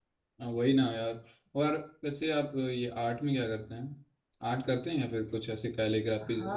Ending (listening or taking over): taking over